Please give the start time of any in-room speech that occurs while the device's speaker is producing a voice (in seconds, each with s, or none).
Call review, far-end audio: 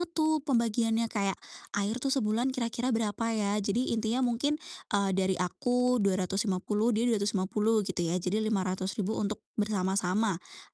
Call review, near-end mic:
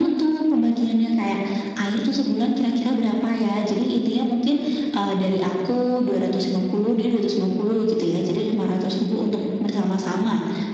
none